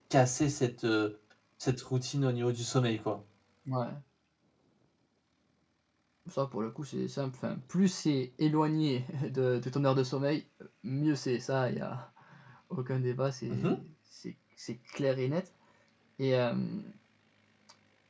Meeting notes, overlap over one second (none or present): none